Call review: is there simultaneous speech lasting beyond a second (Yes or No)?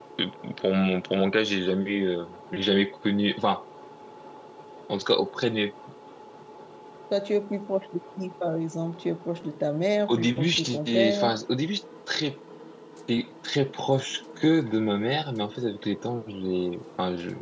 Yes